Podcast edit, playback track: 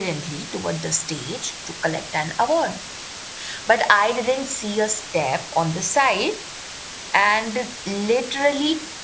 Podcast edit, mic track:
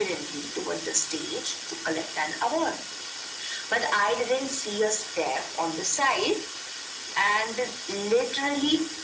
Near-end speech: none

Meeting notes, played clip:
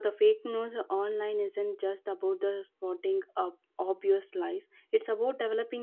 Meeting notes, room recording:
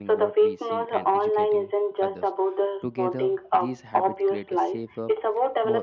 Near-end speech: present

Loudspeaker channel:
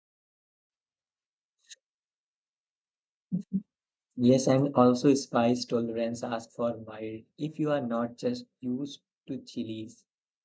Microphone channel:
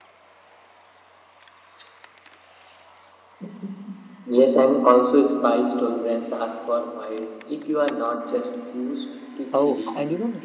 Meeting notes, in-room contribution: present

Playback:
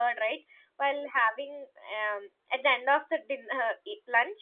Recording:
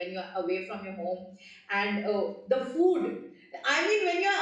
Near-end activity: present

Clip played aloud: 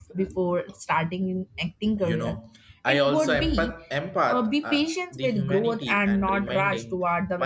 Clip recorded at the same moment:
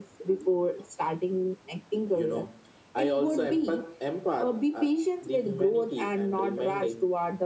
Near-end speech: none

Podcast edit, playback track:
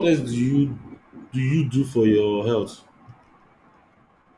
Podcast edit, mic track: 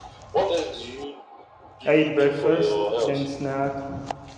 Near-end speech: present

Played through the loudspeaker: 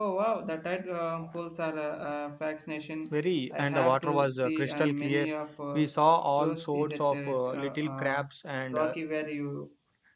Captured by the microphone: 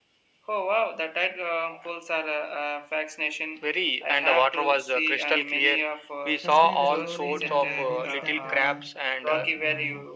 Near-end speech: present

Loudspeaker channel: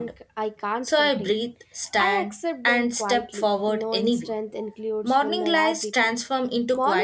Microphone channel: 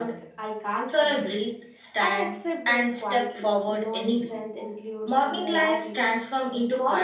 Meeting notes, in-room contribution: none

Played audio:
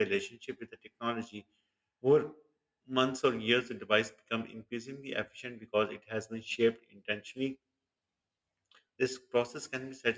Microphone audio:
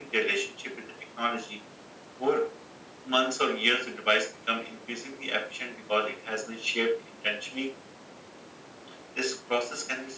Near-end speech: none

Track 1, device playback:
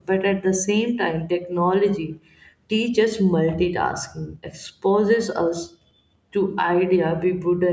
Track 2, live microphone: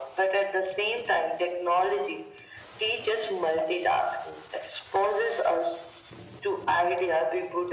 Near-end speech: none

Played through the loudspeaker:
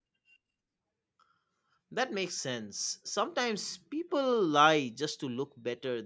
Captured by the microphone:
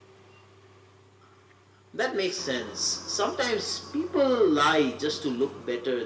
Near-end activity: none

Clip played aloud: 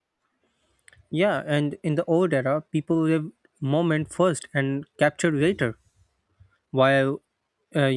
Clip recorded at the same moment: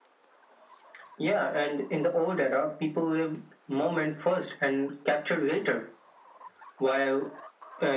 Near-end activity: none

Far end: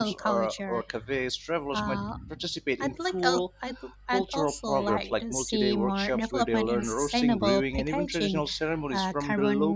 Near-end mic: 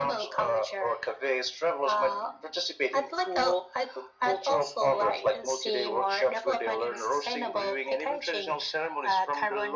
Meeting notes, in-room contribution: none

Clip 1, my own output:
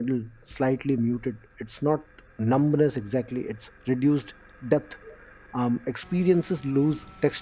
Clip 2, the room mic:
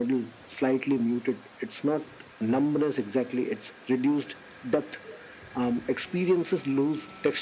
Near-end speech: none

